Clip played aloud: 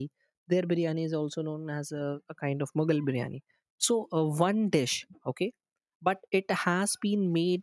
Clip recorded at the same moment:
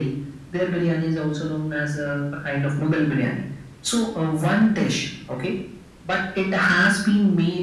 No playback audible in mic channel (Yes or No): No